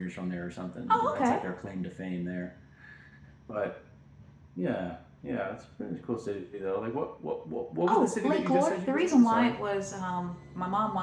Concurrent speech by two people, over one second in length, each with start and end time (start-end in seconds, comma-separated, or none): 7.9-9.6